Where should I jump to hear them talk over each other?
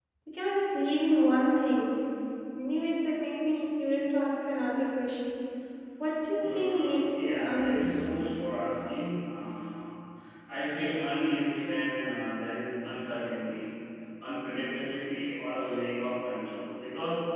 6.4 s

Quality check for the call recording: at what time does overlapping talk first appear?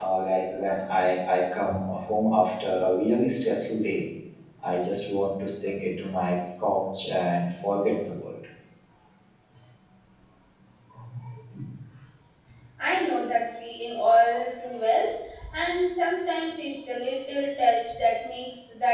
none

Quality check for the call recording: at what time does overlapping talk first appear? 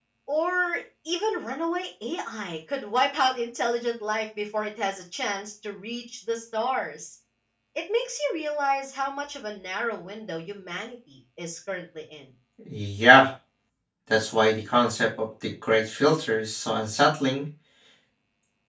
none

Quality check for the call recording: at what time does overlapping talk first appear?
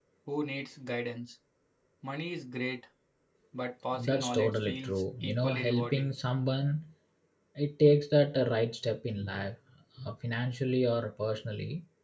4.0 s

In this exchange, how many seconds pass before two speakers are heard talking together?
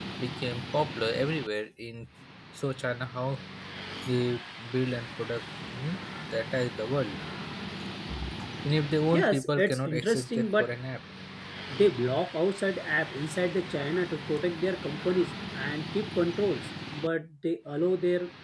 9.1 s

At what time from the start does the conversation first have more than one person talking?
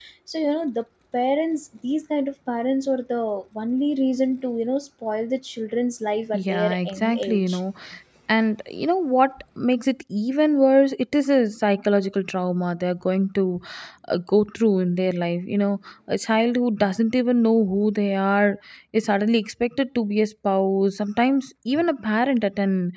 6.3 s

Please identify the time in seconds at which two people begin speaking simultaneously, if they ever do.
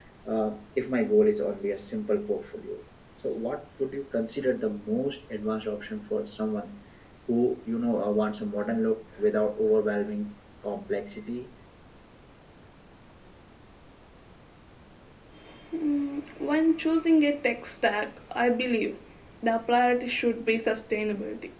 none

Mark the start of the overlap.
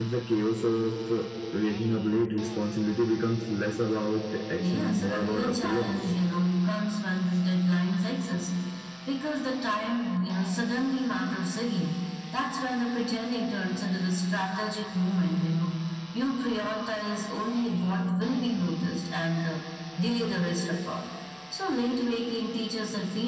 4.6 s

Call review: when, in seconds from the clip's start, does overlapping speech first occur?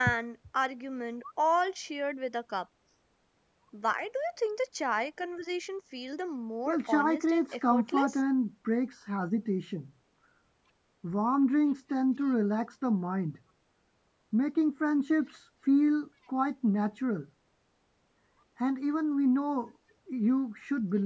6.7 s

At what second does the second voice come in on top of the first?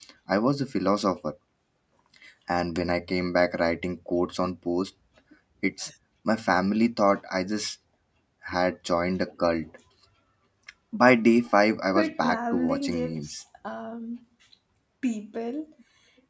12.0 s

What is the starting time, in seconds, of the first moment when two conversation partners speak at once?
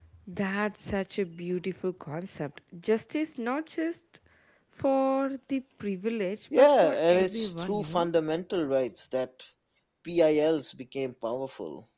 6.5 s

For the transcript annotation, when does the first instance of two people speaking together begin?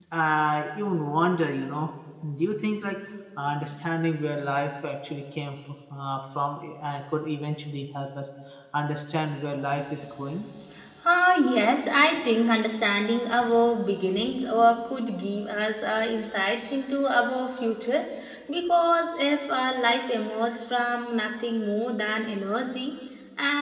none

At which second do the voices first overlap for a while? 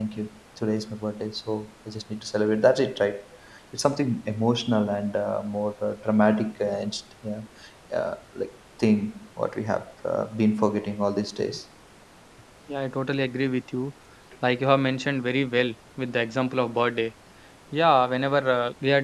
none

